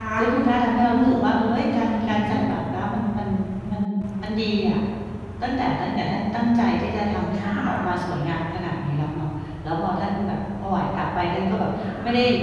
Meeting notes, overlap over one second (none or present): none